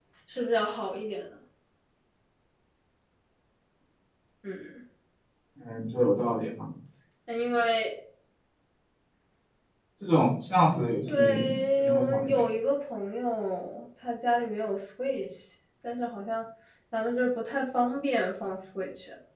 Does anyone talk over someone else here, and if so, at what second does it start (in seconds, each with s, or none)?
11.0 s